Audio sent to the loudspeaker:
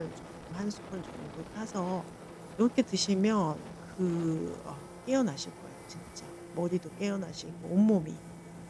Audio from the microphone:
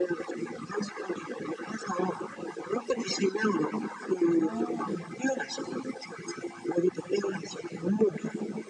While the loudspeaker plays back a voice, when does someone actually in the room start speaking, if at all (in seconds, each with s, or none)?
4.3 s